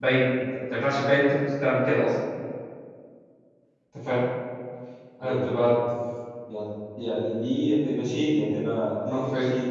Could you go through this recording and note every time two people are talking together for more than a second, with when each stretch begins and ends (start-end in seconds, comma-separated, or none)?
none